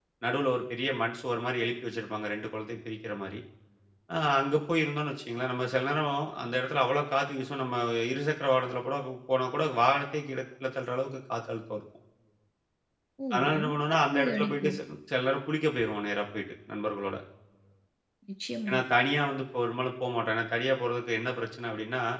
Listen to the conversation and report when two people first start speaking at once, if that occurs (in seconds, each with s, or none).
13.3 s